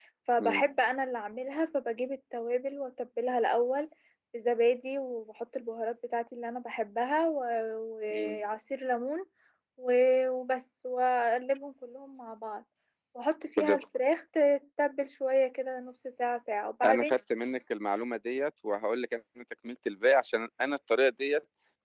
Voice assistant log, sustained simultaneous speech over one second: none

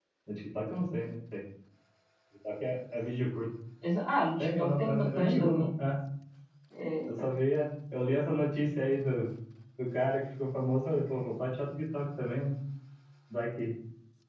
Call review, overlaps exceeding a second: present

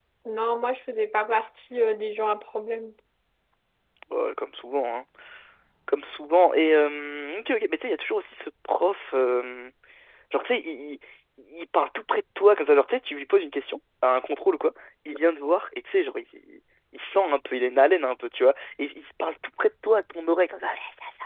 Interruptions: none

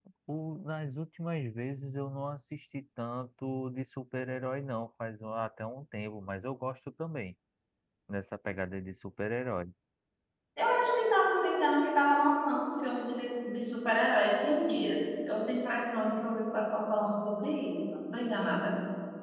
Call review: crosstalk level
none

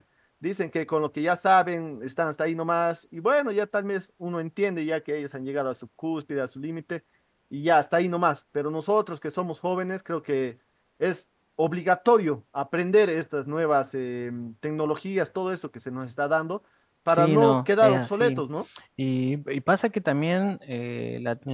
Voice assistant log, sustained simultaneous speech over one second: present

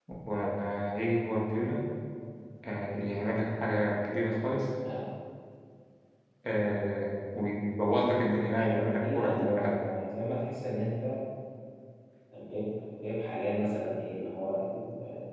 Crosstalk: present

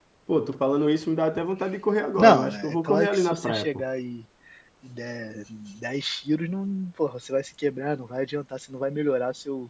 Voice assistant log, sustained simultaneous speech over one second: present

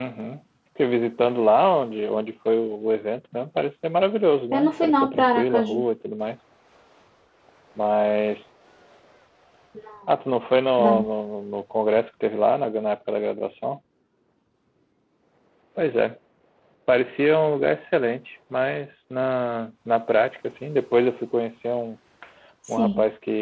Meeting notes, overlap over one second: present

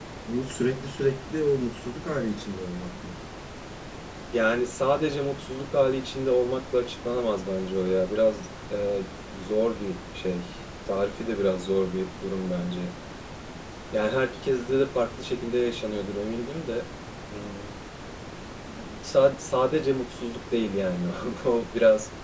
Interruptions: none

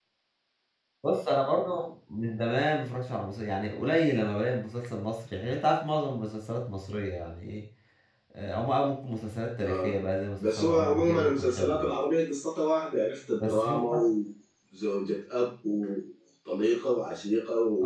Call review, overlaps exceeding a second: present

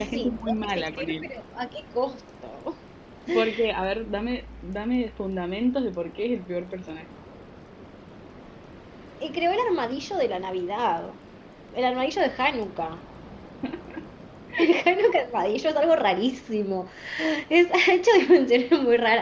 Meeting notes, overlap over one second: present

